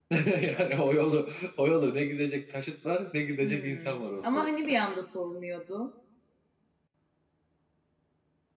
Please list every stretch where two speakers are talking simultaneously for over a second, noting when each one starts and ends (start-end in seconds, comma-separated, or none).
3.4-4.8